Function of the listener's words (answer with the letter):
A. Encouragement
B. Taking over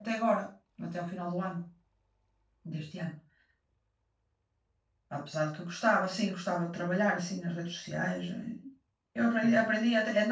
A